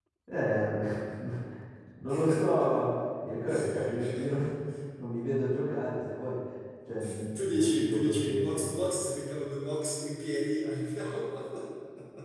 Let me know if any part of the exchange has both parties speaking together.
Yes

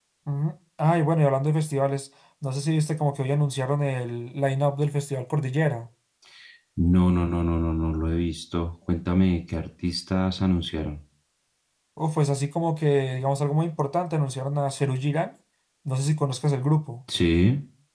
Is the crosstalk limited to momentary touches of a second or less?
Yes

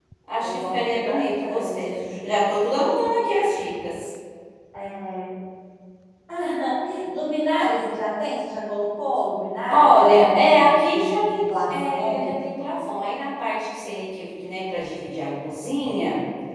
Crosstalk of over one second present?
Yes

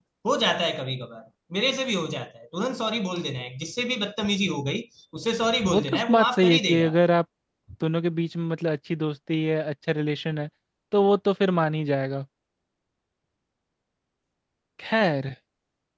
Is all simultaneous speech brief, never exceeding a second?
No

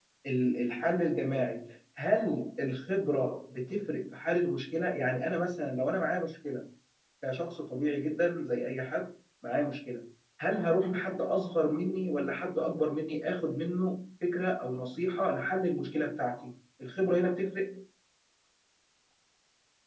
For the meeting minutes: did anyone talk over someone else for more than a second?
No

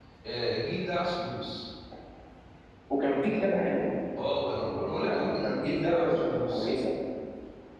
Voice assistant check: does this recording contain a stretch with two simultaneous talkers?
Yes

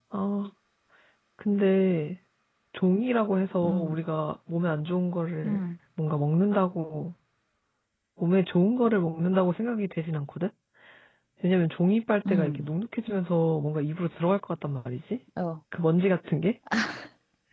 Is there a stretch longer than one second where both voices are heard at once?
No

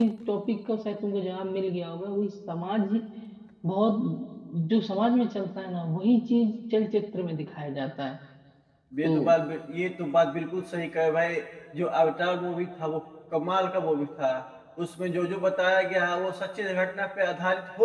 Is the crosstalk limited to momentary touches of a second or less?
Yes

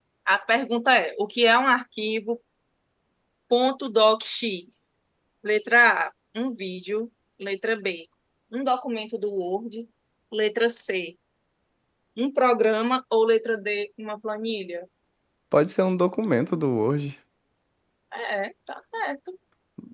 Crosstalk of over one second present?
No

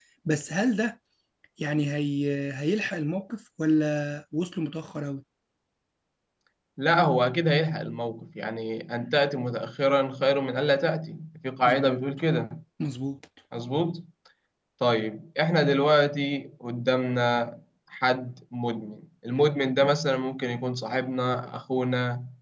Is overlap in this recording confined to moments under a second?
Yes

